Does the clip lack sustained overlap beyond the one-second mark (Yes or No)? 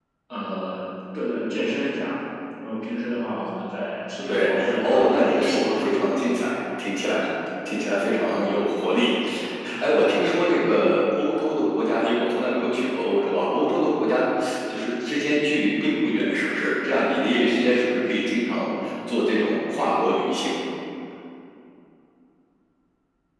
No